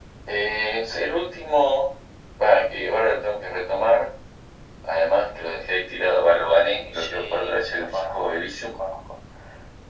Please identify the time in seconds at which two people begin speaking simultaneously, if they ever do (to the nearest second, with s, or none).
7 s